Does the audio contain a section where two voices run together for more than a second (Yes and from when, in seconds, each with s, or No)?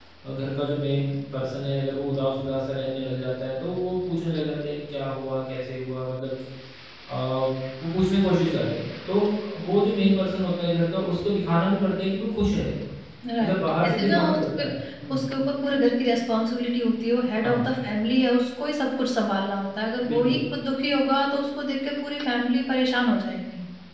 Yes, from 13.4 s